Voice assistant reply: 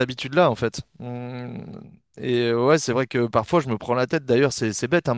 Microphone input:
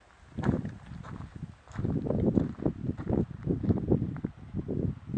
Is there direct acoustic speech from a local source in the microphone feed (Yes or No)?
No